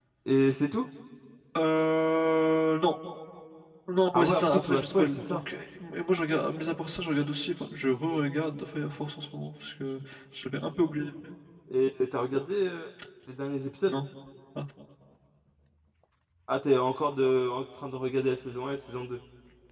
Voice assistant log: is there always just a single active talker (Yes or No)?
No